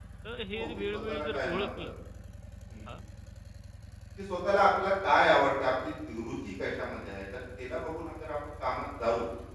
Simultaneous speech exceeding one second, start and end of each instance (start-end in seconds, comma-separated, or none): 0.5-1.9